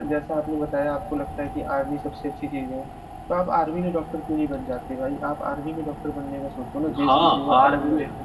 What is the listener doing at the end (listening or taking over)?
taking over